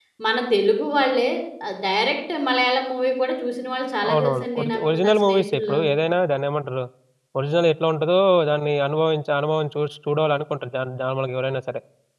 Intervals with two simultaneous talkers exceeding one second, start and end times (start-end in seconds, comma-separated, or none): 4.1-5.8